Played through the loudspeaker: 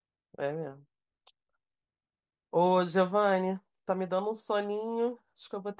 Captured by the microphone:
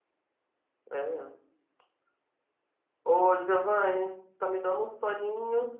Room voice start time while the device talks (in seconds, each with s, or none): none